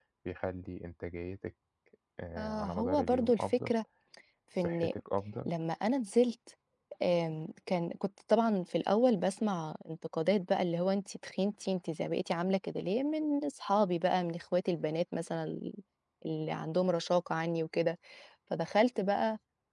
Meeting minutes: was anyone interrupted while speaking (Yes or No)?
Yes